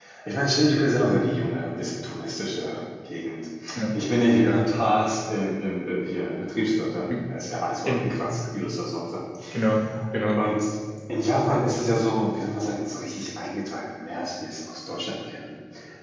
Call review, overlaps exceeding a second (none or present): none